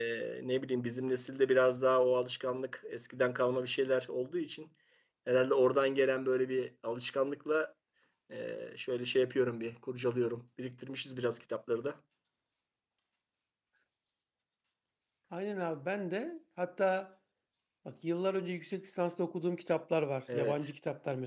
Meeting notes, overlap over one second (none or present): none